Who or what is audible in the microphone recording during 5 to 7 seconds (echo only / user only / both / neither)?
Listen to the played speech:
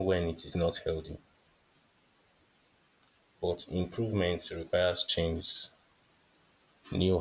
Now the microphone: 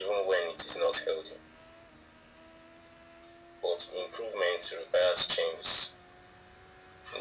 echo only